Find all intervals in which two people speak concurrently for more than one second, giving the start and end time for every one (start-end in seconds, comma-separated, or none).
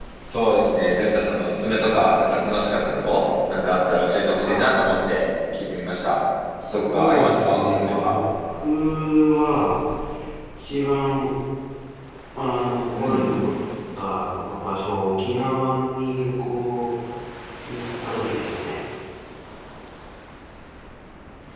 6.7-8.1